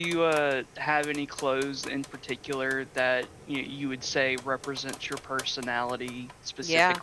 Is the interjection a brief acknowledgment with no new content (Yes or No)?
No